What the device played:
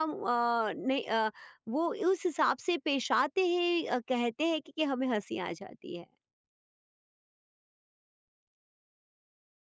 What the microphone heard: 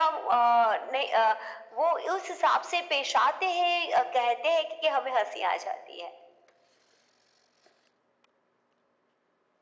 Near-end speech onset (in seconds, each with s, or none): none